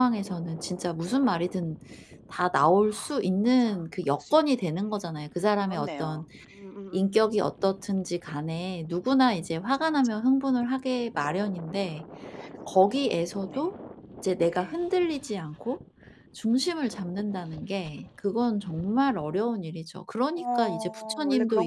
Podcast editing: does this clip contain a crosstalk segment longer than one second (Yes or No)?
Yes